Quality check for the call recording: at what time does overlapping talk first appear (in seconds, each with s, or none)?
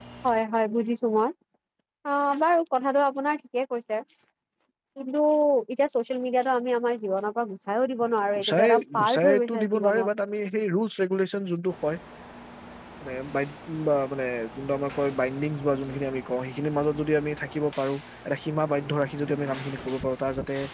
8.4 s